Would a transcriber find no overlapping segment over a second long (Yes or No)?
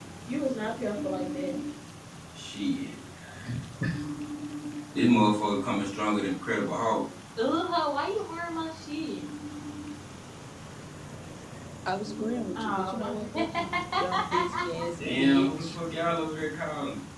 No